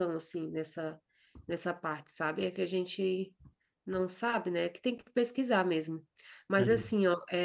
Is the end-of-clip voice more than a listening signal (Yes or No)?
No